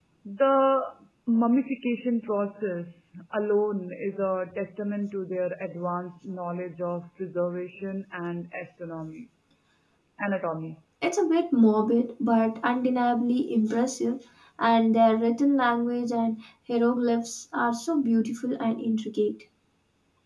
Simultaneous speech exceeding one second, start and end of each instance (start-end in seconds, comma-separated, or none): none